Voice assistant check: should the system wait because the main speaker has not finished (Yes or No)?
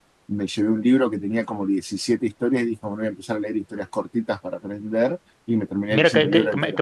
No